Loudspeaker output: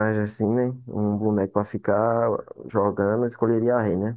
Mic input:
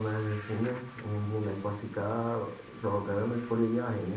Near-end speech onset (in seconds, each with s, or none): none